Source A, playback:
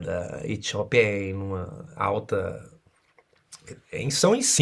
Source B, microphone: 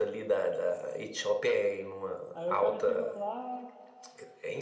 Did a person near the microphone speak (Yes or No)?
Yes